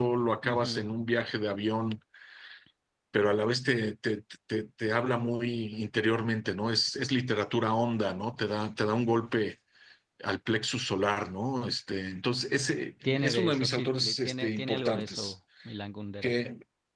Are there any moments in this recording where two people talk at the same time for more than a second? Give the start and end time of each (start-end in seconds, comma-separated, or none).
13.0-15.3